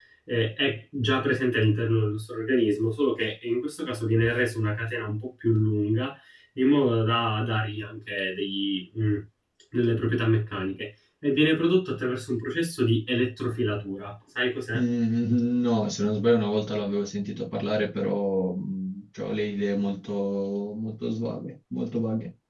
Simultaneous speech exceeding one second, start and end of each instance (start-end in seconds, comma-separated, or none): none